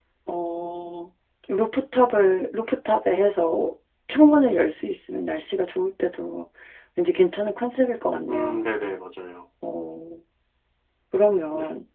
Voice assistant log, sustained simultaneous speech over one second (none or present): none